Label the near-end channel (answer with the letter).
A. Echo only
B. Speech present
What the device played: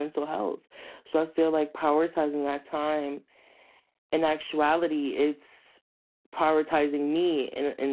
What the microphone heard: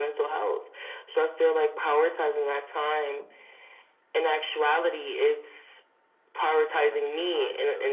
B